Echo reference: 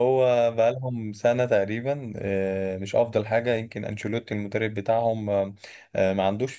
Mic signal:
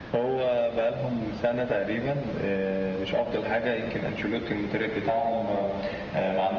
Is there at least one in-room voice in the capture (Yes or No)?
No